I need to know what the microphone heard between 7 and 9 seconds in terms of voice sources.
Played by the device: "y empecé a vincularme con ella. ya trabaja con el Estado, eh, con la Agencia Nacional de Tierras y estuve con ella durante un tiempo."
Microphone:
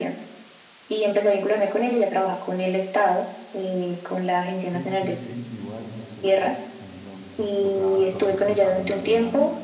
both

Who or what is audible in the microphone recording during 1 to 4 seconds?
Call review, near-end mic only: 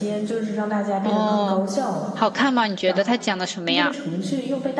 both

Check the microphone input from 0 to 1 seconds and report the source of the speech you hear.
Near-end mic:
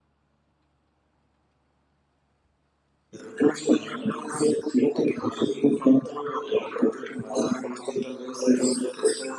neither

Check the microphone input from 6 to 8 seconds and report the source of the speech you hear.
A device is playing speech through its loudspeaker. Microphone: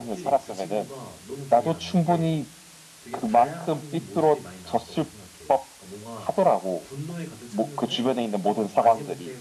both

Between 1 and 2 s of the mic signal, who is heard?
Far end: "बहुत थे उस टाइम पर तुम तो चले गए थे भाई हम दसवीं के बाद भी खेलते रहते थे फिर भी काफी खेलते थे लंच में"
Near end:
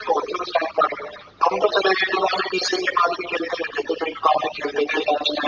echo only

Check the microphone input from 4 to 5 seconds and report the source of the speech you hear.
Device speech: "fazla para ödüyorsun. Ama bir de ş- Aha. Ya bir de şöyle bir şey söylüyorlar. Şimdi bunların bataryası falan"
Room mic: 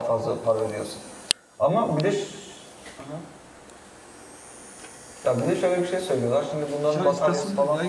neither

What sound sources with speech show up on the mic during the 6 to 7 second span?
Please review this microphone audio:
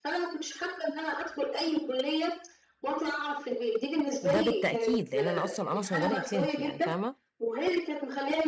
both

